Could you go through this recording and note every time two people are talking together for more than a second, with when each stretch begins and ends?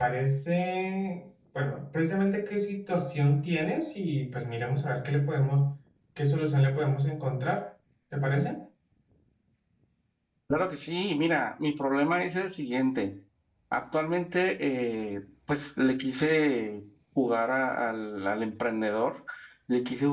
none

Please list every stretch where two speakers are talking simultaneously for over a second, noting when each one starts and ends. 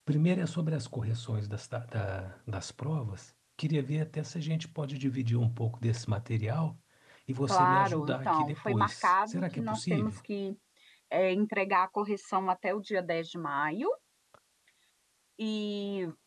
7.5-10.2

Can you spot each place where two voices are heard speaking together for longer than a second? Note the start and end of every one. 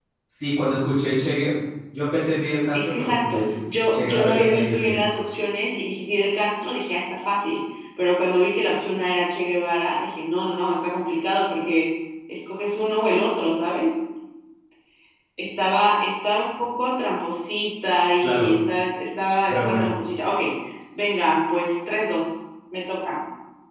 2.7-5.0

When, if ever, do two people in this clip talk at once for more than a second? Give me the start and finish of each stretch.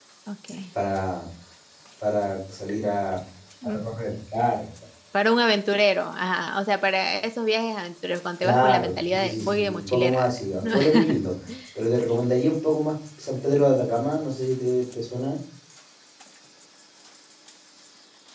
8.4-11.2

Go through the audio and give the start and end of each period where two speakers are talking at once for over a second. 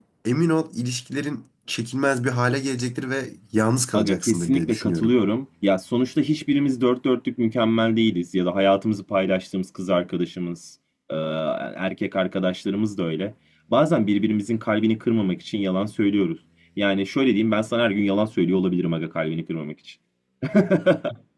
3.9-5.1

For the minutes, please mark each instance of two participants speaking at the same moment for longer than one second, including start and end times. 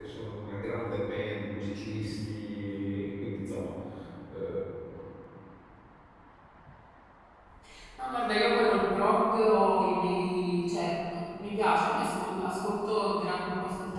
none

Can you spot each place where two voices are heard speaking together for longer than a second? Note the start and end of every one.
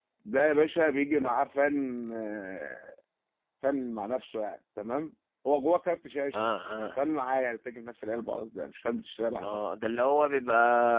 none

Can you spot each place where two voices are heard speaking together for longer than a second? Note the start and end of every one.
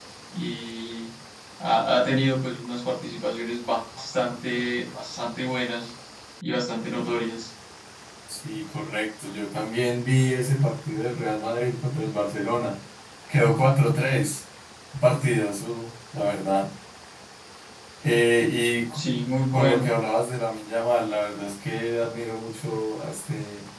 none

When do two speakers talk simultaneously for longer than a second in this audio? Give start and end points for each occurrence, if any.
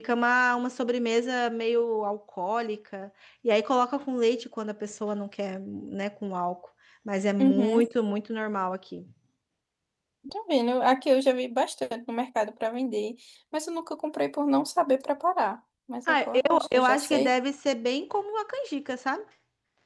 16.1-17.3

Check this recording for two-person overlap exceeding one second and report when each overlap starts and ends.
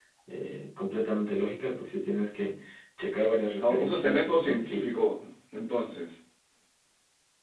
3.6-4.9

